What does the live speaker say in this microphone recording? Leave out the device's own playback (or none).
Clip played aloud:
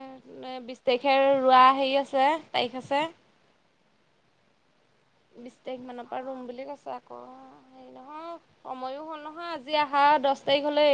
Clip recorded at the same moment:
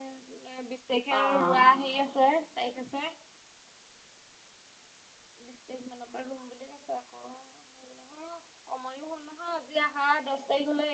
অ',